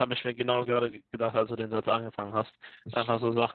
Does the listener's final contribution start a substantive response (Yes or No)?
No